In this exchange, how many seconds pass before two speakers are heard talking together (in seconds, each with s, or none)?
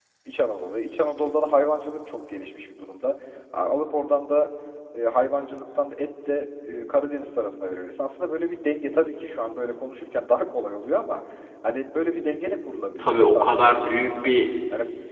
13.0 s